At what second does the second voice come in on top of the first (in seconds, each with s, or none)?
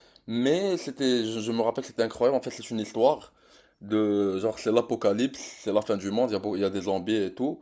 none